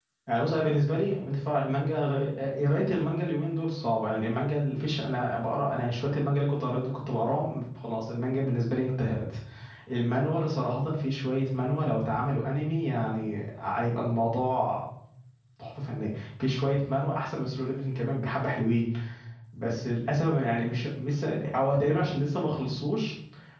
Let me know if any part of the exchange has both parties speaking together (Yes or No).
No